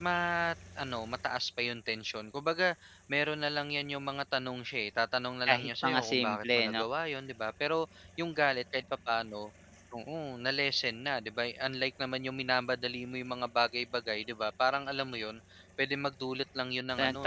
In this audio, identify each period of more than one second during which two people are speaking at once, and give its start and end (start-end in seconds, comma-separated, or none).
5.5-6.8